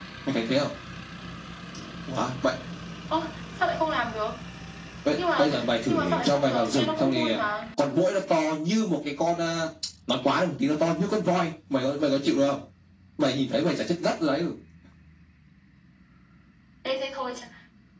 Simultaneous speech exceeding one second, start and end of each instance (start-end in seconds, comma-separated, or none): 5.4-7.4